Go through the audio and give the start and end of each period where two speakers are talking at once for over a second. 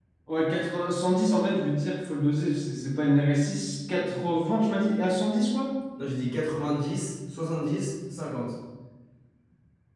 none

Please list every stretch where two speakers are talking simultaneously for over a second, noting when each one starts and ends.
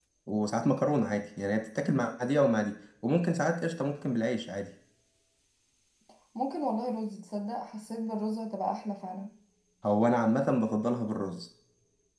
none

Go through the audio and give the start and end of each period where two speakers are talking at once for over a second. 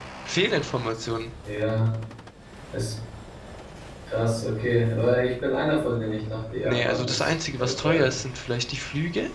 6.6-8.1

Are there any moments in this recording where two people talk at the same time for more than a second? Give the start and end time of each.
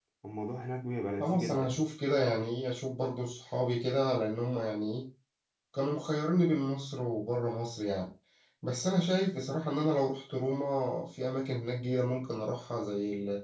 none

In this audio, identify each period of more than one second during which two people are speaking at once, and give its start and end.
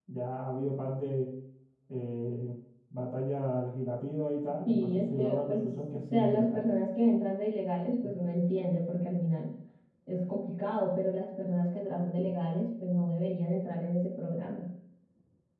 4.7-6.7

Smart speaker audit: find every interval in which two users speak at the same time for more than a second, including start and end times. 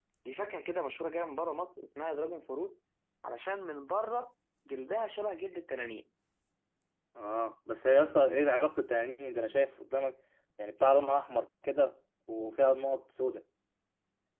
none

